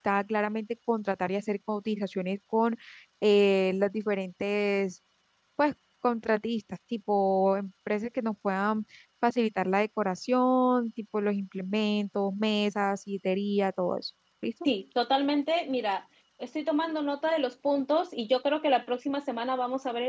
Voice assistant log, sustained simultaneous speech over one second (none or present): none